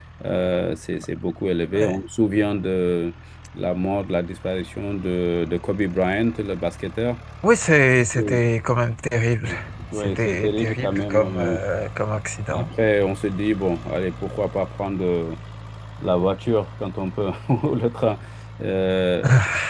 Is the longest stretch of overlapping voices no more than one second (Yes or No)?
No